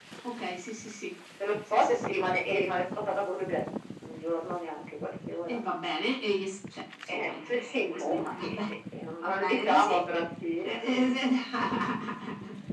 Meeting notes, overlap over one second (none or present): present